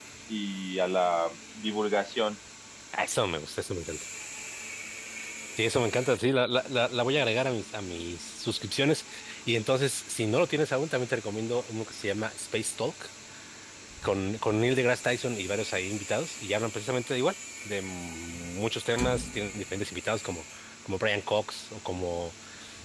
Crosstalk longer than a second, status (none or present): none